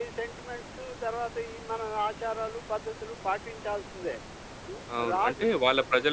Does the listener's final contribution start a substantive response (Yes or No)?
Yes